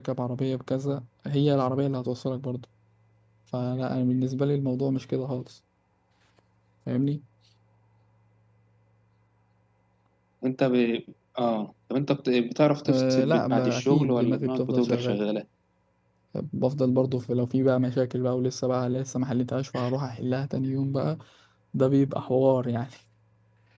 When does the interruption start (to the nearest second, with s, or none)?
13 s